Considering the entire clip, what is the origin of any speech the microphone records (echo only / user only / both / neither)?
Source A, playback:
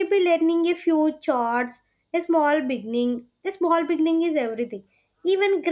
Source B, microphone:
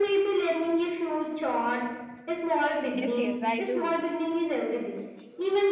both